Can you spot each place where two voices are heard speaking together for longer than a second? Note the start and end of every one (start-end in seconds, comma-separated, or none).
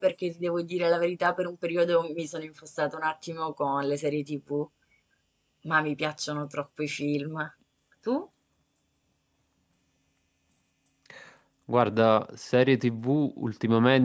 none